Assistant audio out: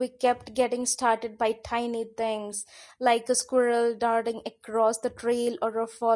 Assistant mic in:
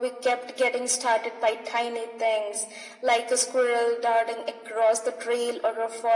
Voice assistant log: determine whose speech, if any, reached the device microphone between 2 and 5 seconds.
echo only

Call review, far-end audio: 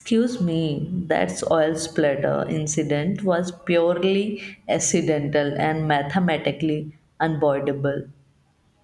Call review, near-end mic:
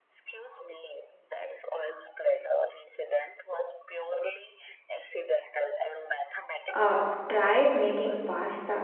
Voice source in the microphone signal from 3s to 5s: echo only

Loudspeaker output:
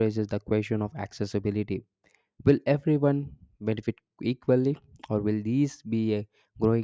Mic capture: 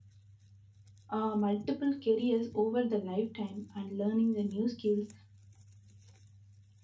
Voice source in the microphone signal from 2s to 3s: user only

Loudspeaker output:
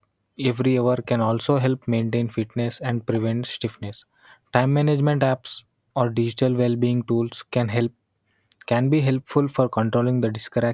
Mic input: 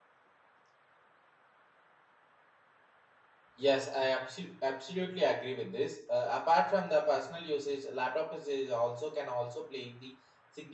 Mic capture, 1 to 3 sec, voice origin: neither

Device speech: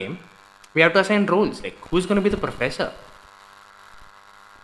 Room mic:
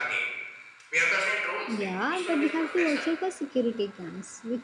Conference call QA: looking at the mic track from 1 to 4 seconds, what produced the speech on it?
both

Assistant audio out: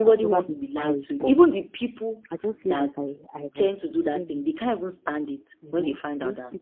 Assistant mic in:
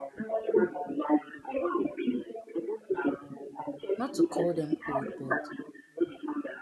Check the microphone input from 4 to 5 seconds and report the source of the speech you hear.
both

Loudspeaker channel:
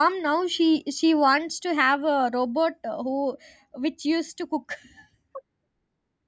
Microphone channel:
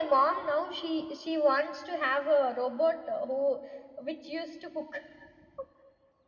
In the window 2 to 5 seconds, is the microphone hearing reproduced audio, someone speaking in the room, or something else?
echo only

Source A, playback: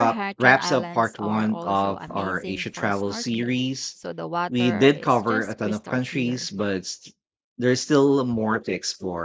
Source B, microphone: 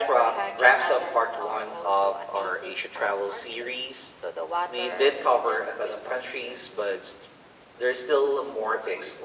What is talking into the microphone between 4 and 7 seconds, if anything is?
echo only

